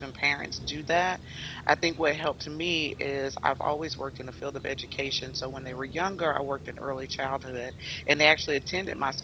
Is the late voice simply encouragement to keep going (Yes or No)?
Yes